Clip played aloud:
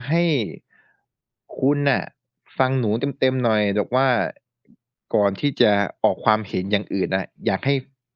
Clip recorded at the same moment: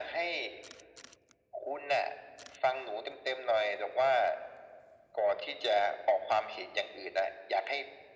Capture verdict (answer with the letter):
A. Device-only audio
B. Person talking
A